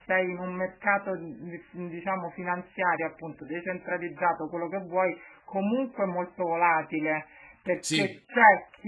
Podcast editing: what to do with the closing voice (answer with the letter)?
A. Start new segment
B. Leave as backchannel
B